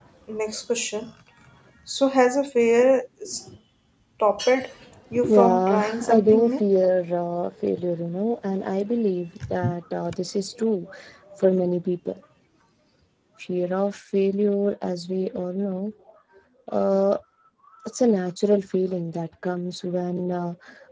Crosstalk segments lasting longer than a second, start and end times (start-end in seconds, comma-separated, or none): 5.3-6.7